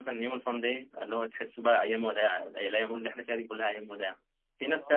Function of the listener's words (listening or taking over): listening